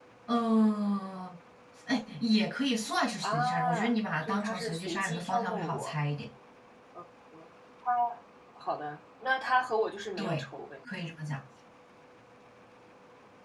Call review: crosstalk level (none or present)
present